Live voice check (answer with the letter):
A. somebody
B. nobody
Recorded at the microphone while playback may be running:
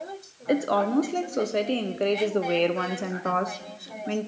A